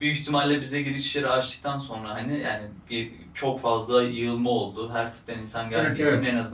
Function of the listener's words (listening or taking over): listening